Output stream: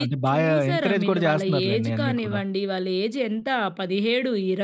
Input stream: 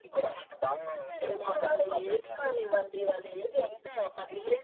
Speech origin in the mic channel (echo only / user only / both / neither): echo only